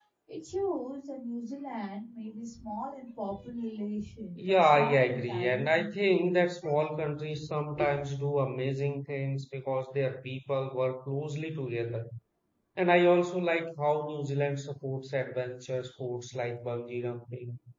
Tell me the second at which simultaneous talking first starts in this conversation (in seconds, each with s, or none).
4.4 s